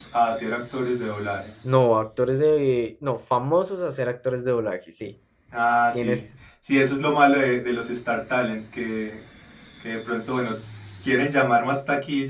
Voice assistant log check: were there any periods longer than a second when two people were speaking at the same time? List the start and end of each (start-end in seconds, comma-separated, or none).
none